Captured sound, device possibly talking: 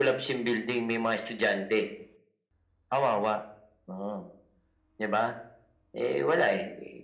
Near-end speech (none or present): none